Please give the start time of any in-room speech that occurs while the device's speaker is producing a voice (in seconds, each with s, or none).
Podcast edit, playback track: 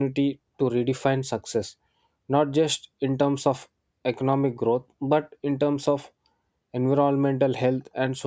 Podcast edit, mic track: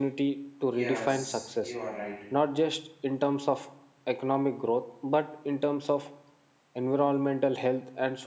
0.7 s